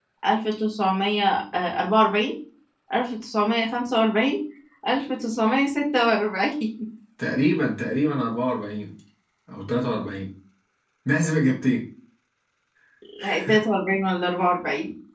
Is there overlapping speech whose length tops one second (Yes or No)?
No